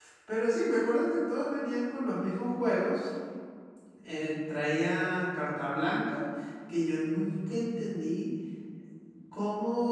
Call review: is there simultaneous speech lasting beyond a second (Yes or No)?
No